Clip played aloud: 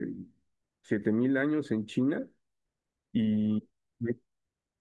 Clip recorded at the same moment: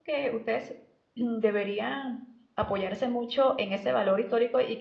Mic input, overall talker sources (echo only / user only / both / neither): user only